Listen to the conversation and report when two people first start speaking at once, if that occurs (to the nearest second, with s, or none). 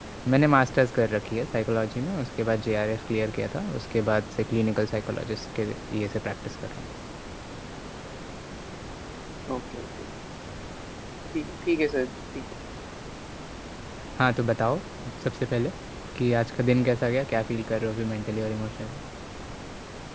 none